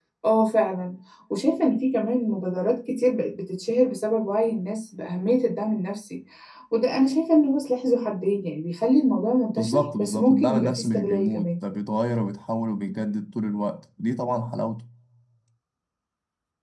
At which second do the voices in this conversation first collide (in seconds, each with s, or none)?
9.6 s